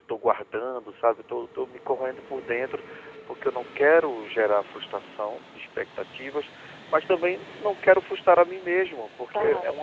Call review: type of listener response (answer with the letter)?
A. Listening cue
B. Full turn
A